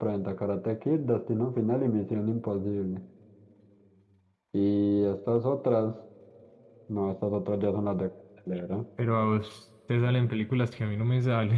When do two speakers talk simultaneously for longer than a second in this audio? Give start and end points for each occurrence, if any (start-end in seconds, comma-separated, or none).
none